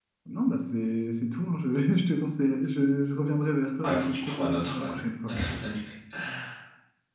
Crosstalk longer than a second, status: present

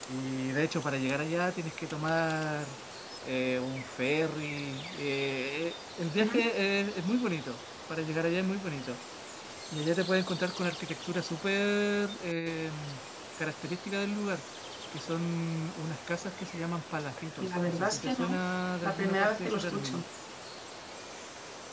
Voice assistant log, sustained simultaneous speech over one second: present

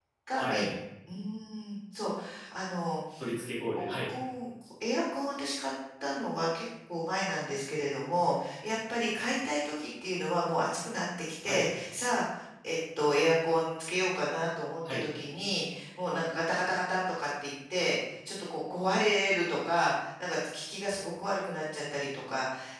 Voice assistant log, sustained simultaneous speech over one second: none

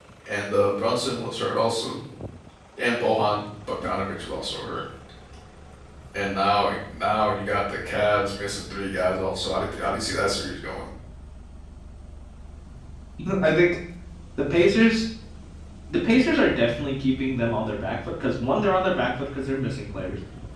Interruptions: none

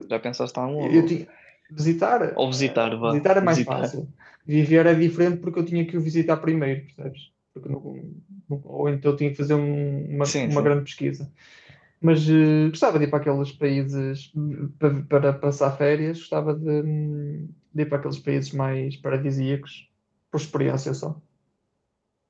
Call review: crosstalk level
present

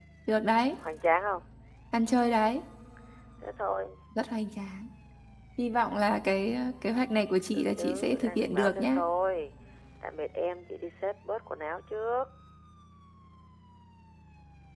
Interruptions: present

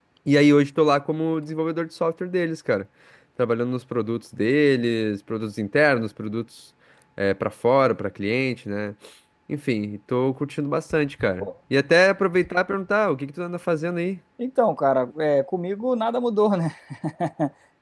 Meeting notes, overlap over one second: none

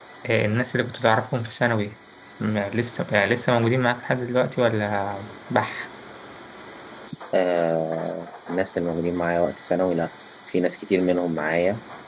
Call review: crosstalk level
none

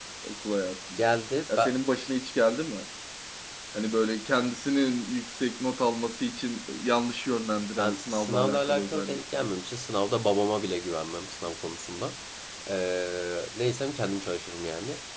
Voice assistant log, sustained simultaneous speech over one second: present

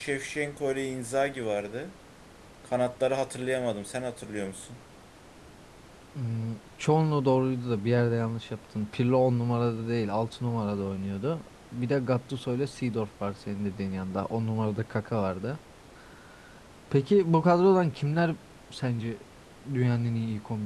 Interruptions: none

